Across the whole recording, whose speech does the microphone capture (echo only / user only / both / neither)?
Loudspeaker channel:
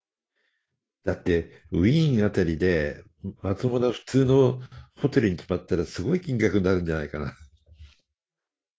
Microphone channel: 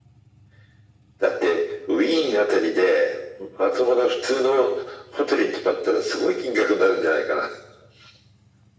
echo only